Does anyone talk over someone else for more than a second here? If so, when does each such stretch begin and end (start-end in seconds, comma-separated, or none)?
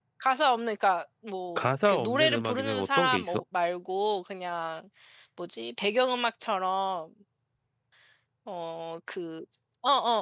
1.6-3.4